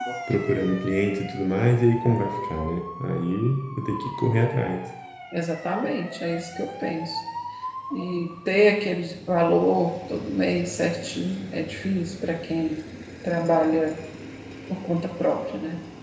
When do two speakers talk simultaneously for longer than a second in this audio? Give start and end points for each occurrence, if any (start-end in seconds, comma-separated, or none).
none